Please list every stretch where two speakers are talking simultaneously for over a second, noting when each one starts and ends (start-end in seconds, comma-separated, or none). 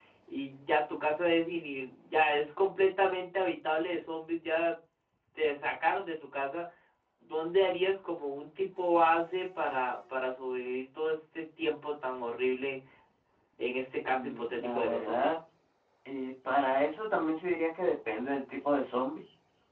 14.1-15.4